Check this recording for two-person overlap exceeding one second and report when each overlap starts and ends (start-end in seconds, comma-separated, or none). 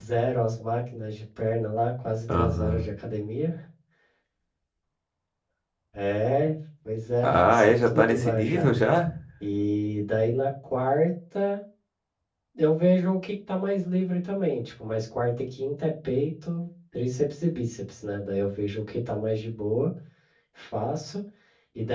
7.2-8.7